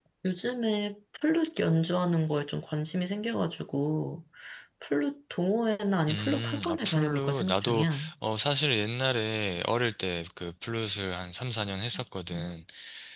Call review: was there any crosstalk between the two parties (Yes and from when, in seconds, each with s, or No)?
Yes, from 6.1 s